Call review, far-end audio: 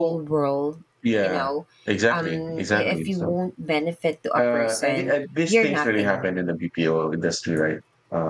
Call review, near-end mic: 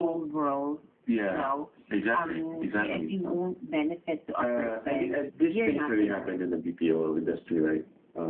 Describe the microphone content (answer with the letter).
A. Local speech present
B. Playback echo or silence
B